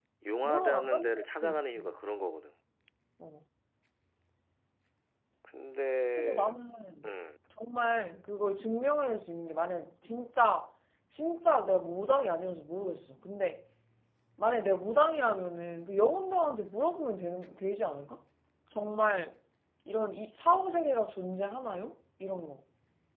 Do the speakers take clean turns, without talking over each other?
No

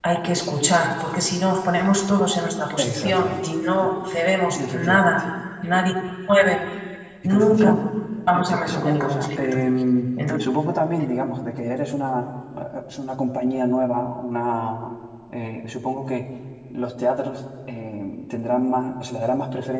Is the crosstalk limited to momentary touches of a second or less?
No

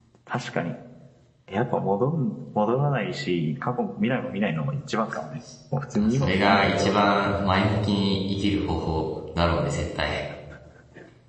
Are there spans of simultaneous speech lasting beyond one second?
Yes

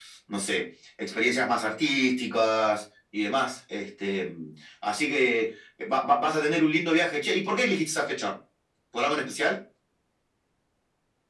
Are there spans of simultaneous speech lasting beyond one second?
No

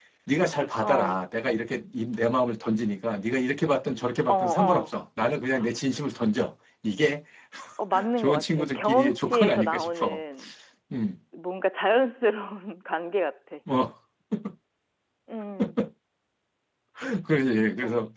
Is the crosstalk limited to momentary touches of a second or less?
No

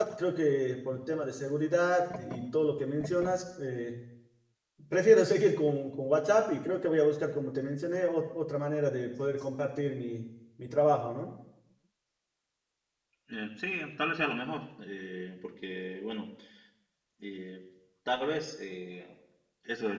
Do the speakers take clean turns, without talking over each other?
Yes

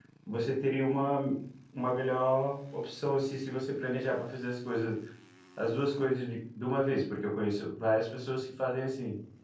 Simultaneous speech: No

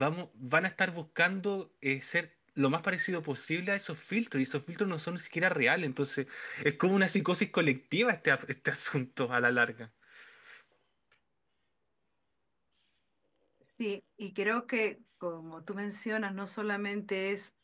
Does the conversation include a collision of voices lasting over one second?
No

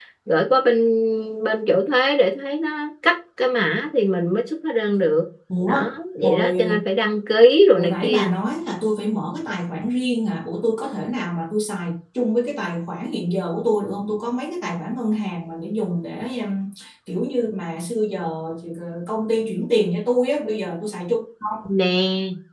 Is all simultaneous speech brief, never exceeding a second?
Yes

